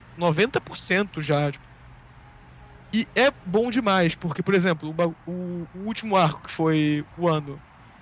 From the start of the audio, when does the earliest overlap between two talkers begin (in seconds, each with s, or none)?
none